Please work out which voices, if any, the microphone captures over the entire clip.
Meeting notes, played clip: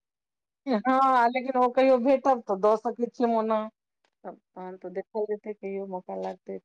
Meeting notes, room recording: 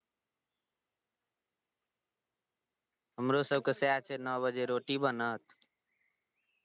user only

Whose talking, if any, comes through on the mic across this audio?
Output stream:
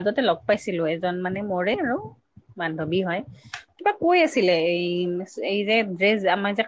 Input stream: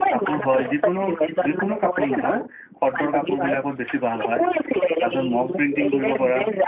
both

